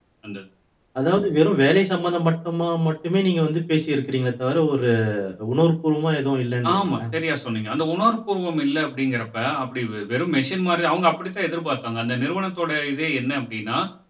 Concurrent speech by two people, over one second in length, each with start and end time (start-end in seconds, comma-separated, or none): none